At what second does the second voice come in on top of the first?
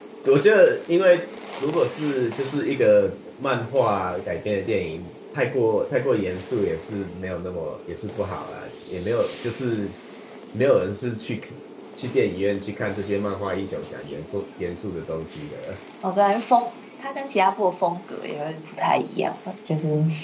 none

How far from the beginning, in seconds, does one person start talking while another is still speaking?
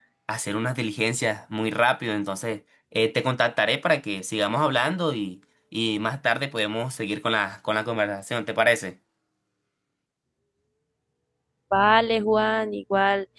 none

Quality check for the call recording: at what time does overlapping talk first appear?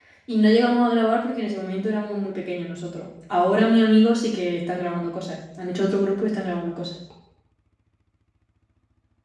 none

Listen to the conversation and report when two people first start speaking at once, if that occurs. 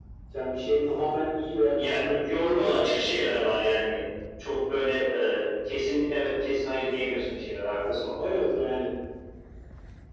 1.8 s

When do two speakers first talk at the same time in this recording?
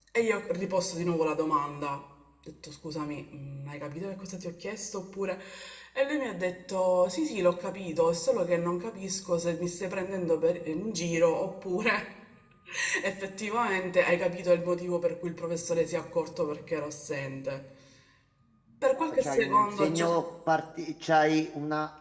19.0 s

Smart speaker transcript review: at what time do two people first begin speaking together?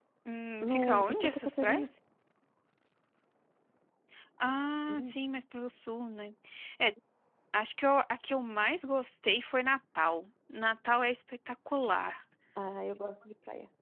0.6 s

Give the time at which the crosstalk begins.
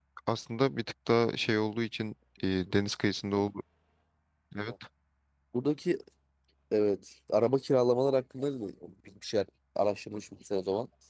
none

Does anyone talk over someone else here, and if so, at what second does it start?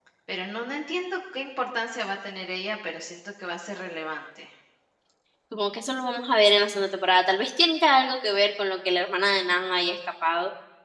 none

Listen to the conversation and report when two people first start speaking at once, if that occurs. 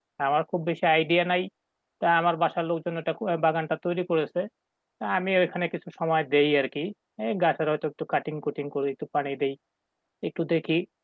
none

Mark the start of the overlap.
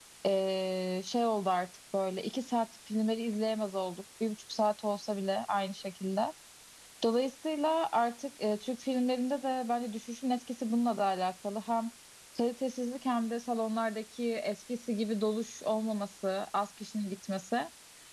none

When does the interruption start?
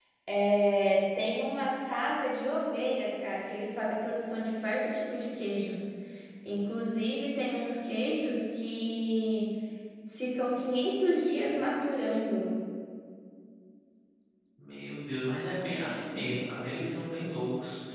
none

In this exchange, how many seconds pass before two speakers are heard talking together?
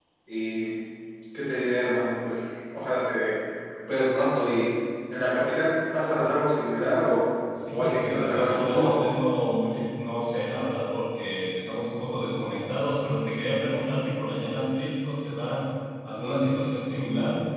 7.7 s

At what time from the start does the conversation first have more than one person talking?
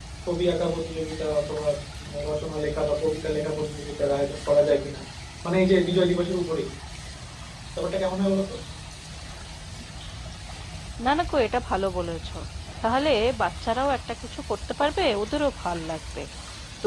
none

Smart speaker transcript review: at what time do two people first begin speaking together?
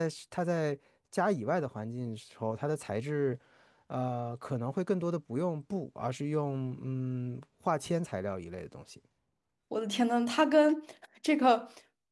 none

